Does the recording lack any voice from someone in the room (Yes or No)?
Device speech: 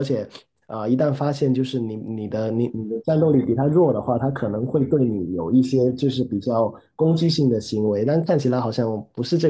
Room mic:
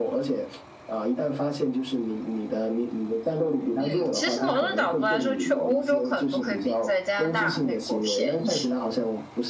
No